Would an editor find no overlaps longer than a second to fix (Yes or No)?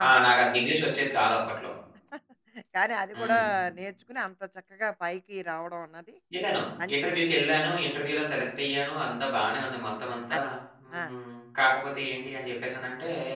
Yes